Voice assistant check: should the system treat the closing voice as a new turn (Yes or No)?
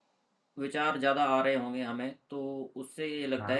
No